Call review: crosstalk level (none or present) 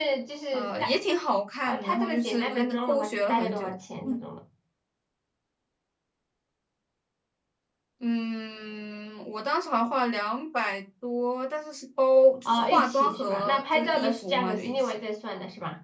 present